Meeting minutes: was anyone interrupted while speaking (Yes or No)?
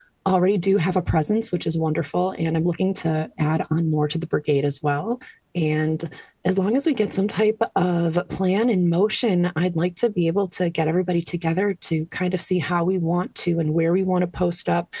No